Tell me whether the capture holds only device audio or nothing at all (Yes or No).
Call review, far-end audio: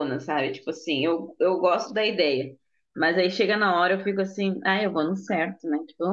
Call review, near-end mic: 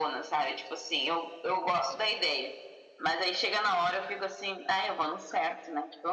Yes